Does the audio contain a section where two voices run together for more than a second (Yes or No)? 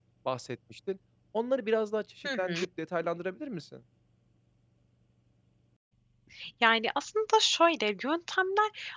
No